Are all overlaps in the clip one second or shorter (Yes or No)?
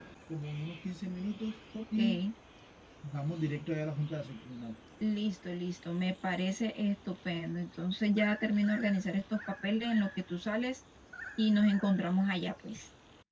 Yes